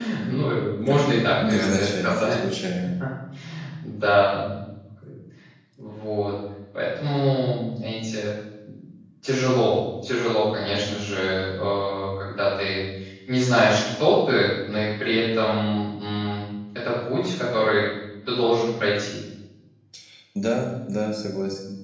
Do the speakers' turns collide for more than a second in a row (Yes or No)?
Yes